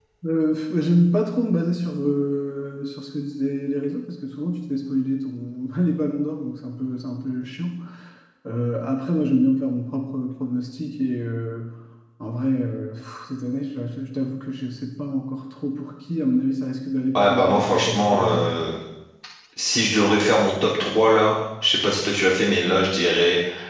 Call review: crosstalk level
present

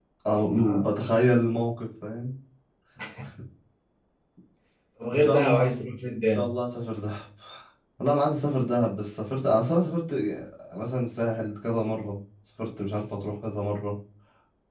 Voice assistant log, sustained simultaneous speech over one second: present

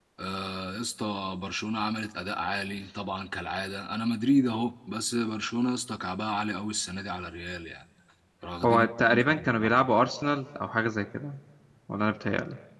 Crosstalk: present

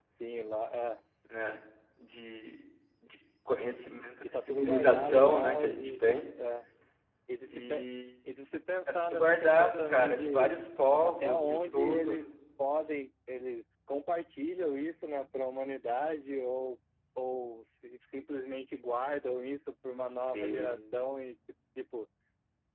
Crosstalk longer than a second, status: present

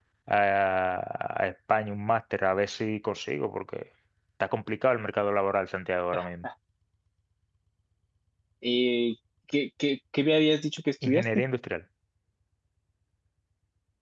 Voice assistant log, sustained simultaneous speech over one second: none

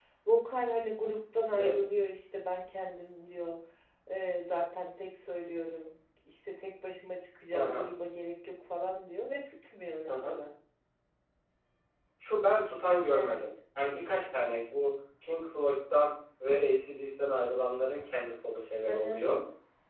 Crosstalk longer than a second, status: none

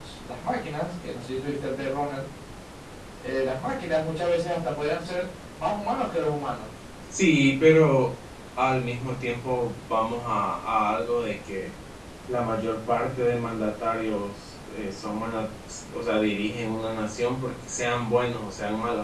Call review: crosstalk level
none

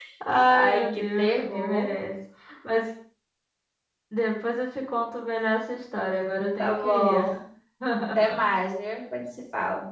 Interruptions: present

